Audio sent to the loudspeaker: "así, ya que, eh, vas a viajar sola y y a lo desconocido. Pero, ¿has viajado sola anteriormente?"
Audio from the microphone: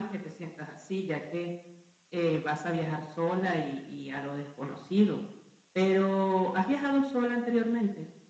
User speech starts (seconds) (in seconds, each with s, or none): none